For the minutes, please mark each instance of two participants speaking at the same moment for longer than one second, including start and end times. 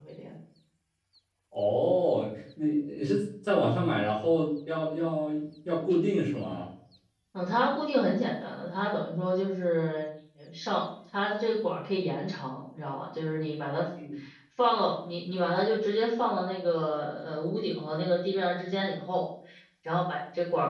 none

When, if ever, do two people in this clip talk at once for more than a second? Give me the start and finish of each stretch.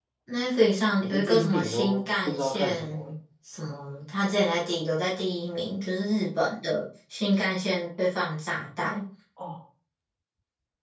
1.0-3.1

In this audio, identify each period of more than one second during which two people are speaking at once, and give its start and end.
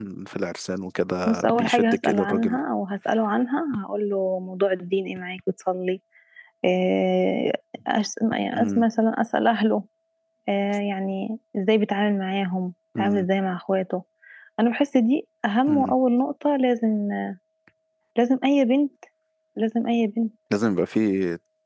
1.2-2.6

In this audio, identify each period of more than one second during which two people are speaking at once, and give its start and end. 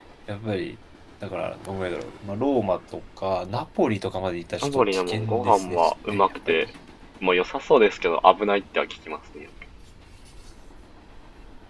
4.6-6.7

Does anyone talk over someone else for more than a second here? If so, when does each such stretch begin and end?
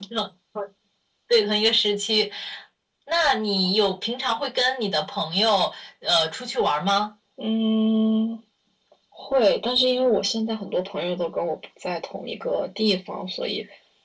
none

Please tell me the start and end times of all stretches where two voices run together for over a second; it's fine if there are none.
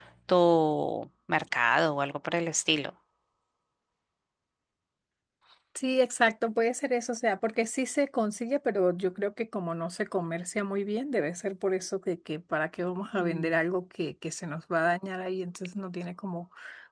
none

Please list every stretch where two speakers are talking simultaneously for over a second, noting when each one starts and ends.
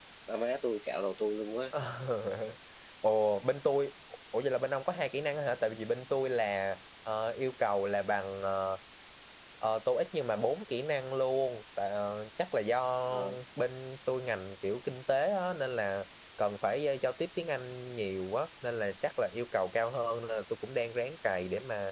none

